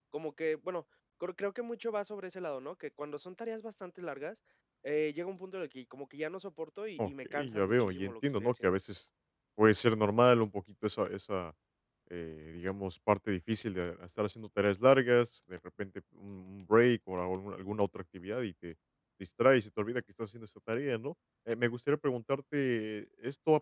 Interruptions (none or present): present